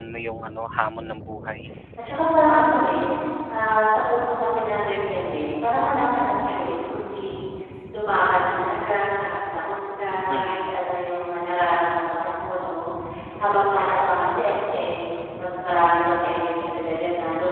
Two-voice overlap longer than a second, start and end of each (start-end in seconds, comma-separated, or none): none